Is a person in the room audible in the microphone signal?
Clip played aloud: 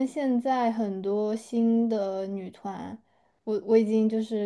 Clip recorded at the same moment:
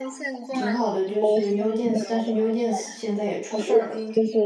Yes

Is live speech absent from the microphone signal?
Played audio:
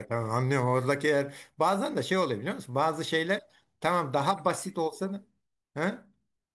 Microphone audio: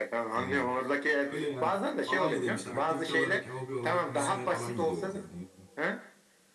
No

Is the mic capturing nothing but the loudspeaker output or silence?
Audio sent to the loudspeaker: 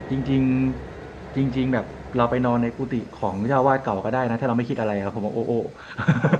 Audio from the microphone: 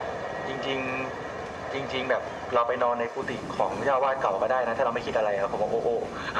Yes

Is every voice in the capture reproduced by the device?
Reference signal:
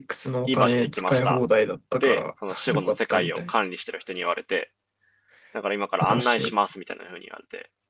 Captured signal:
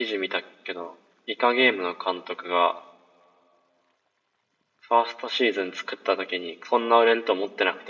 No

